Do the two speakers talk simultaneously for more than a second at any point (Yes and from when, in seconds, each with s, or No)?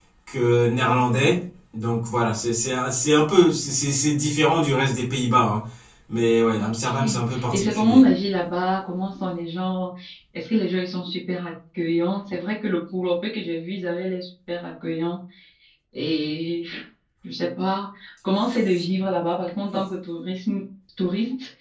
Yes, from 6.6 s